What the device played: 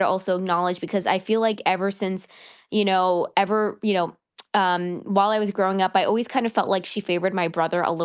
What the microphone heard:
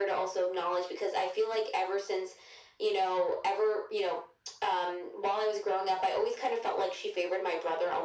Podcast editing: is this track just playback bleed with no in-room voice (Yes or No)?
Yes